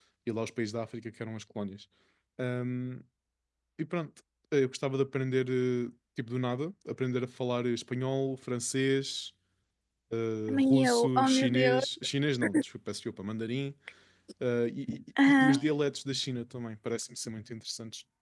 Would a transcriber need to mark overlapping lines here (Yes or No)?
Yes